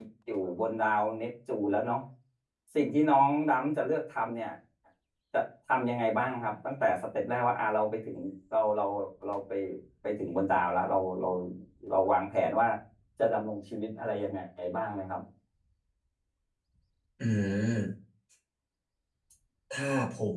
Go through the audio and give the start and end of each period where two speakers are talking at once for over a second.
none

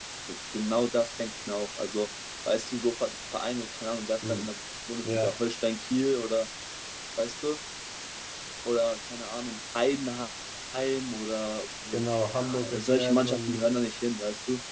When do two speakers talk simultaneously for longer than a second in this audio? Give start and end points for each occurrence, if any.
11.9-13.6

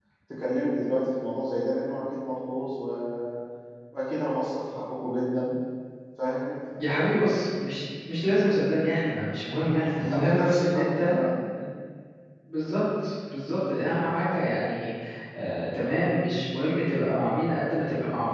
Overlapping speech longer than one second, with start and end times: 10.0-11.2

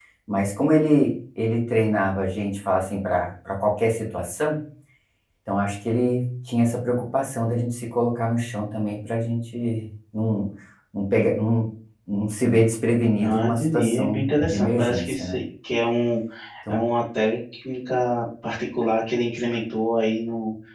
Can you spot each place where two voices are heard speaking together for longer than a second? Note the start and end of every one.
13.2-15.4

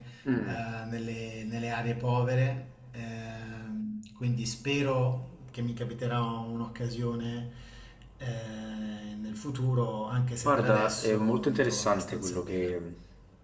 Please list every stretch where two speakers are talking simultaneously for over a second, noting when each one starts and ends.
10.4-12.7

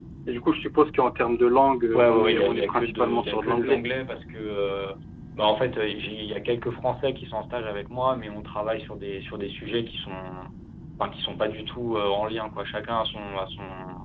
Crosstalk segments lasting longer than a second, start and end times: 1.9-3.8

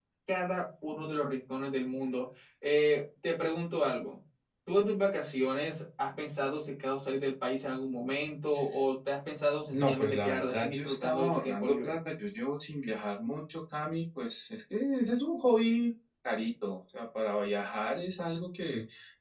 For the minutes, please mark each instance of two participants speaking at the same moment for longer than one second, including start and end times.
9.7-11.9

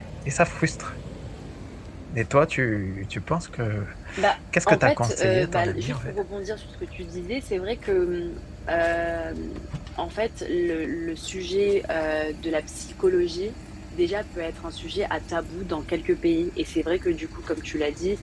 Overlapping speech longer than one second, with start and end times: 4.7-6.2

